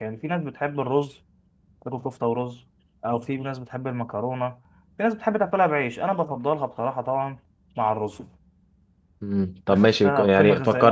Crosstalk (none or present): present